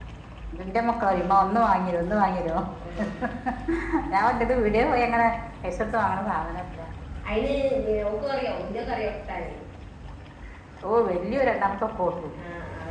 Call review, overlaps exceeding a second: none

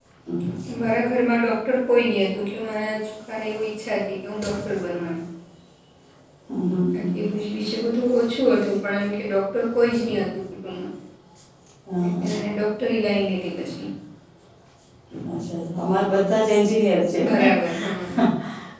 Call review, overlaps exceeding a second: none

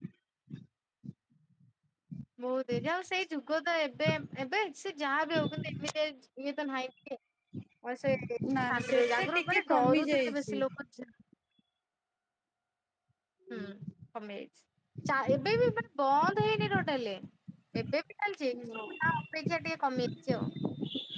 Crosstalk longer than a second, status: present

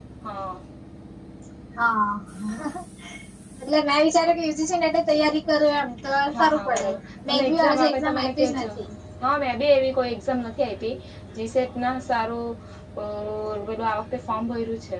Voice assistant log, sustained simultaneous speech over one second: present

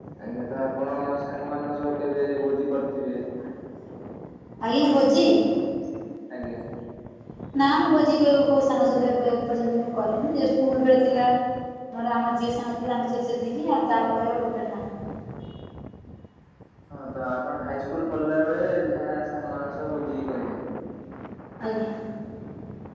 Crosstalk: none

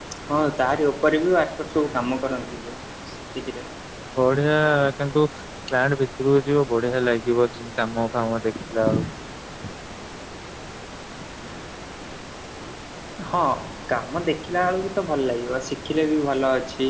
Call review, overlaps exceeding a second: none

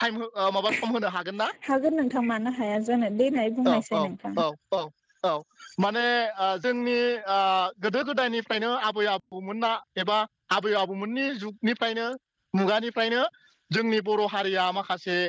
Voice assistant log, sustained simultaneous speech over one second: none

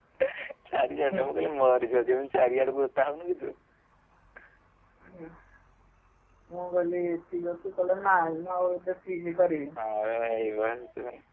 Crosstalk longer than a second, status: none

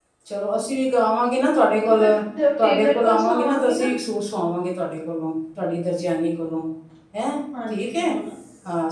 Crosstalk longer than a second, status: present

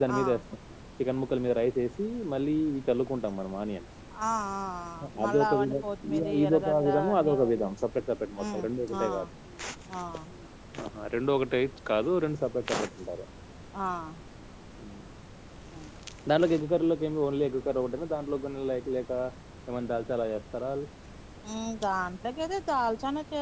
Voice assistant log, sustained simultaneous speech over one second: present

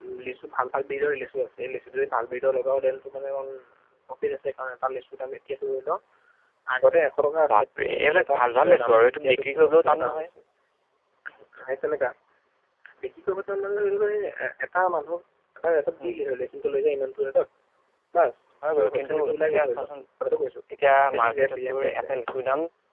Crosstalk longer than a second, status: present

